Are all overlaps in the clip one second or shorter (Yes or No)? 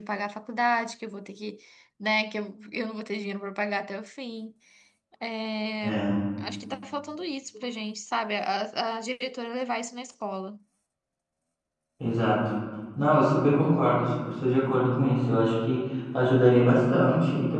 Yes